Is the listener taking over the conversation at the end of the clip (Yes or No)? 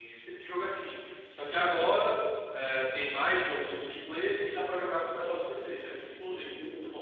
Yes